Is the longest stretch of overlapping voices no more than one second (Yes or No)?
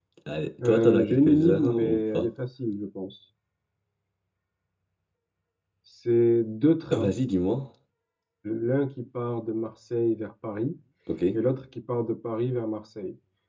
No